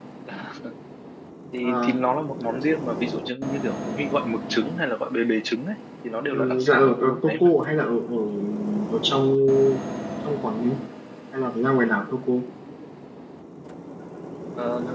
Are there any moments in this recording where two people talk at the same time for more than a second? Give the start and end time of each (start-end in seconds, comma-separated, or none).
6.3-7.5